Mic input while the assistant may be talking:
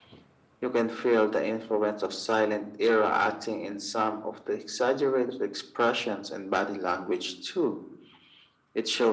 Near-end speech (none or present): none